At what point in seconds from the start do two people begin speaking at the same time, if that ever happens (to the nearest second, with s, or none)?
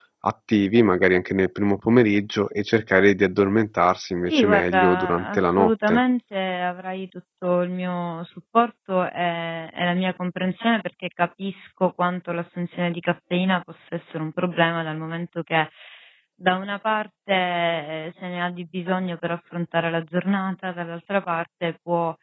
4 s